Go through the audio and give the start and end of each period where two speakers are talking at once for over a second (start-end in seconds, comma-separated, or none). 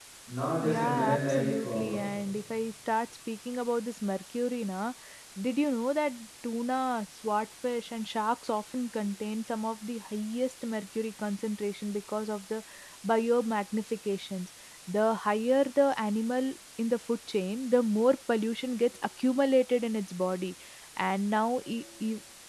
0.6-2.1